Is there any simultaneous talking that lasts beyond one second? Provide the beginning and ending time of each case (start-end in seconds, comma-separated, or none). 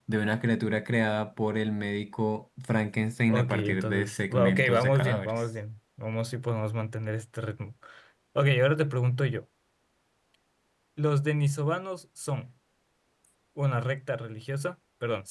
3.3-5.4